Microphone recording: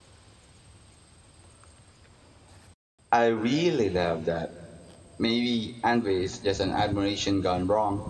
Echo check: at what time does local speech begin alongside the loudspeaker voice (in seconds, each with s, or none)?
3.1 s